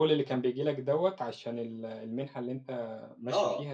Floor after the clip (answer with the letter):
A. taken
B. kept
A